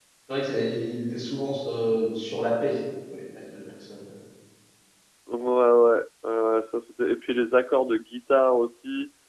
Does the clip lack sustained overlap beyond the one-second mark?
Yes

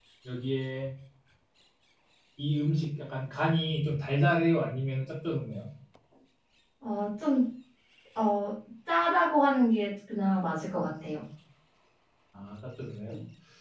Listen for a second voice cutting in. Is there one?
No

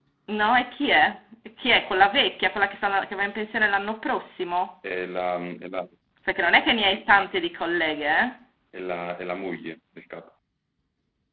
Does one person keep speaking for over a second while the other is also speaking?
No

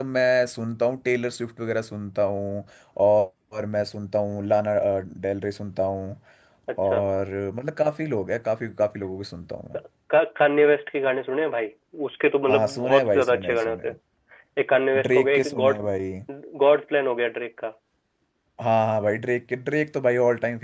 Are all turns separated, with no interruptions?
No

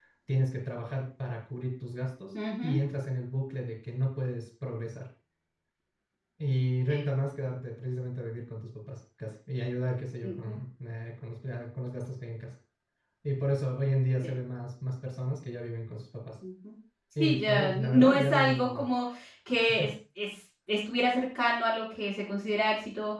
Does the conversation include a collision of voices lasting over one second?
Yes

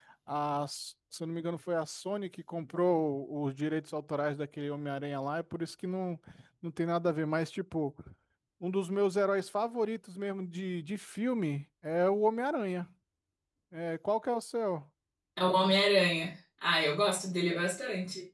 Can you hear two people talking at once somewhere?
No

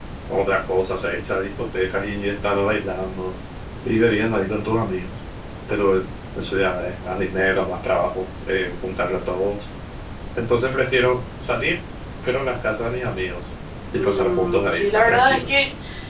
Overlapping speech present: Yes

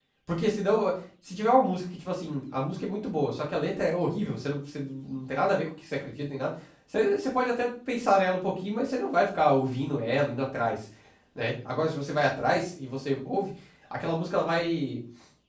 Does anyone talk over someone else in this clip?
No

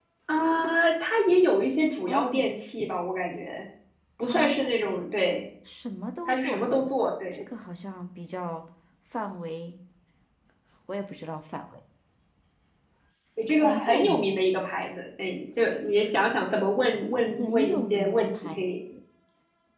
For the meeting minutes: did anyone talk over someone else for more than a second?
Yes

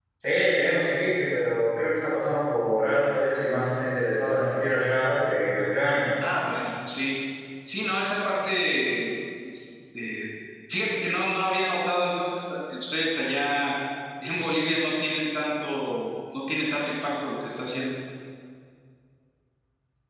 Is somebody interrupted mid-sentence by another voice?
No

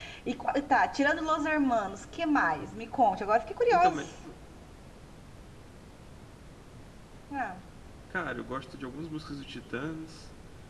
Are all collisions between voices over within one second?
Yes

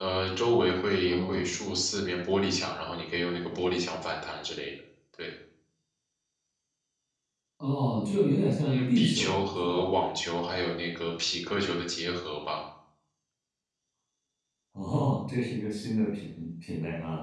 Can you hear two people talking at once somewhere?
Yes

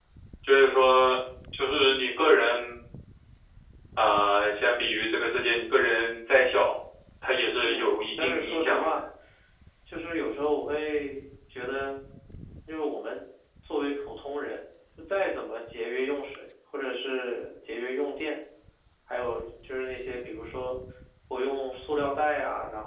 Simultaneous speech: Yes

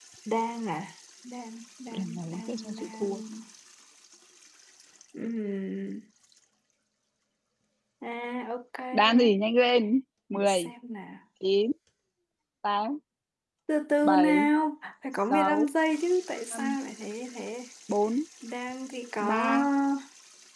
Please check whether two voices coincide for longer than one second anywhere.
Yes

